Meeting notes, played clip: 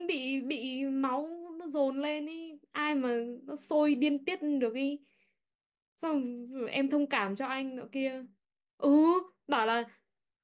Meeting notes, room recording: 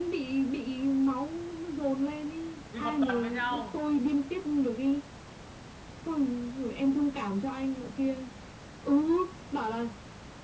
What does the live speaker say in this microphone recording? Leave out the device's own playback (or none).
đi một tuần với nhau